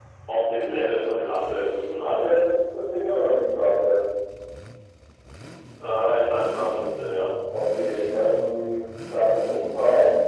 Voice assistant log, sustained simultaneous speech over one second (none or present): none